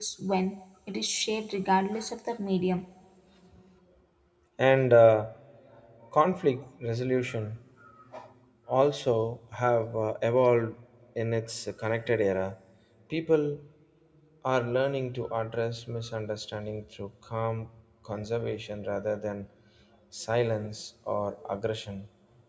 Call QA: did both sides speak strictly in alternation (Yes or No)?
Yes